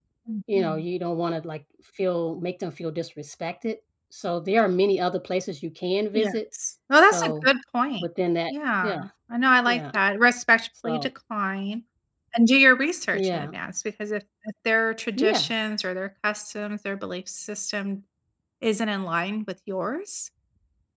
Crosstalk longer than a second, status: none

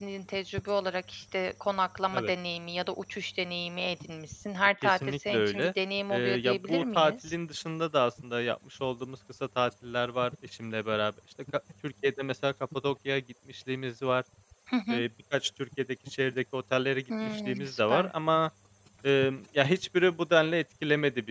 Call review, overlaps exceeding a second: present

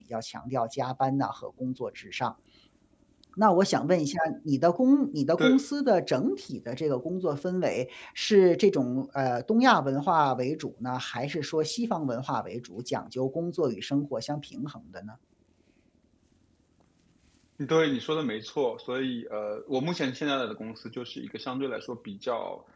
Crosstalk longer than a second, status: none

